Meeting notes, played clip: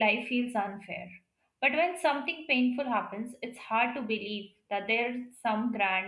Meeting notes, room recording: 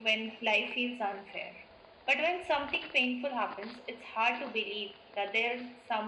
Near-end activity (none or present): none